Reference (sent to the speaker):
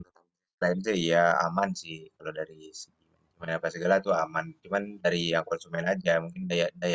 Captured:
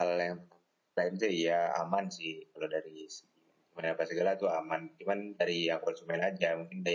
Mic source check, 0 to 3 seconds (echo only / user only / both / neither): echo only